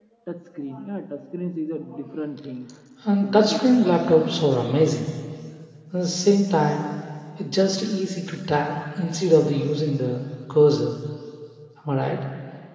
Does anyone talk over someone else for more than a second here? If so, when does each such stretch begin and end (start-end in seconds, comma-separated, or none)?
3.2-4.4